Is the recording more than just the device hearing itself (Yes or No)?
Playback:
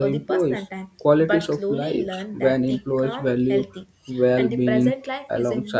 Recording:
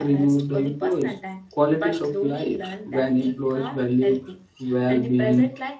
No